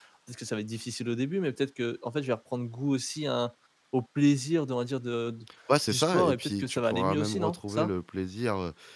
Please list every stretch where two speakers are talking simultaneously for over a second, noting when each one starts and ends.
5.9-7.9

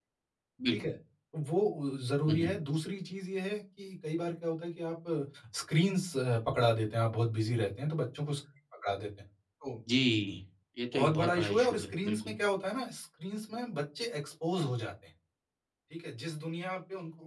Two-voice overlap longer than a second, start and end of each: 10.9-12.3

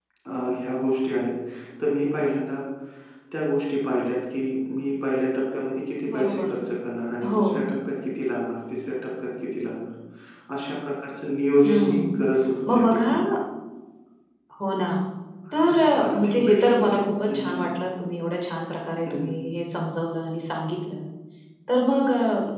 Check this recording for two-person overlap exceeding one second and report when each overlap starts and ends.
15.5-17.6

